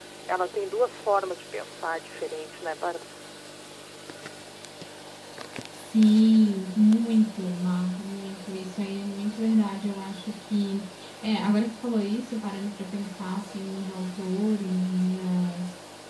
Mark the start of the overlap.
none

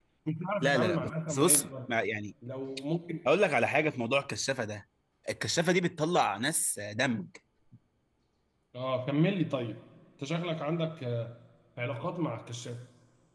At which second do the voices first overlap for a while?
0.6 s

